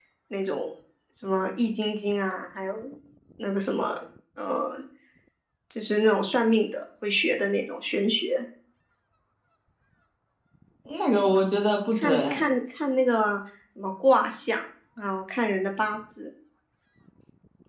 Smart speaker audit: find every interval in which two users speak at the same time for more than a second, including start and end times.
none

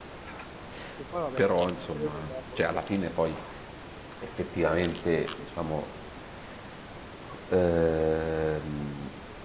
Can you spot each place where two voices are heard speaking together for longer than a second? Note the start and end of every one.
1.4-2.8

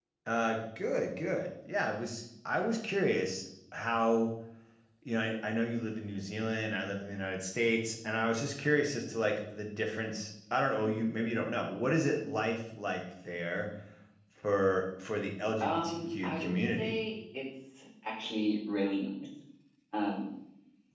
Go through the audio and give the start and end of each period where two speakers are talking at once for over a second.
15.6-17.0

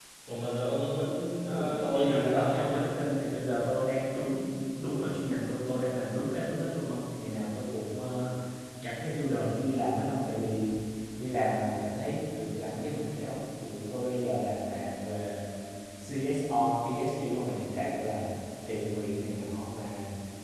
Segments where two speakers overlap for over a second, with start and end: 1.5-2.8

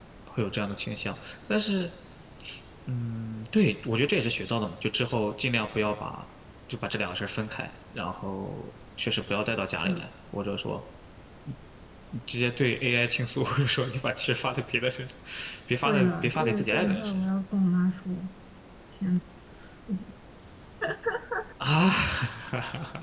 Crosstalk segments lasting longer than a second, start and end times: 15.8-17.3

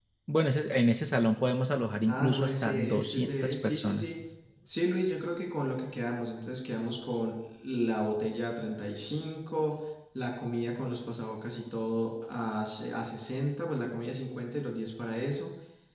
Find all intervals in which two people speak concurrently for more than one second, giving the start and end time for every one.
2.1-4.1

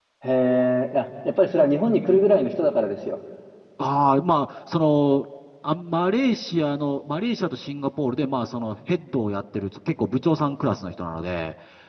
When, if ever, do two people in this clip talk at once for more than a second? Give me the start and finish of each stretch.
none

